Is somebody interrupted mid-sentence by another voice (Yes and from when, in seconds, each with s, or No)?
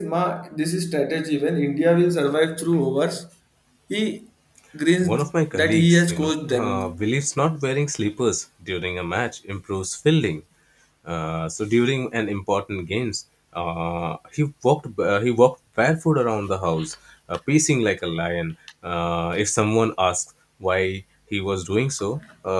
Yes, from 5.0 s